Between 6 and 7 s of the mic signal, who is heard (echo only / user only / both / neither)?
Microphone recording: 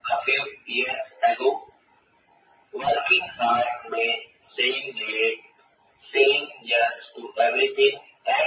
echo only